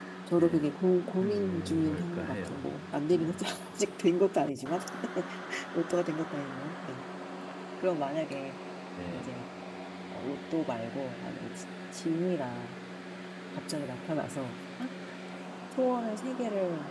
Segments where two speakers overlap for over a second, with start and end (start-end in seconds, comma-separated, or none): 1.2-2.7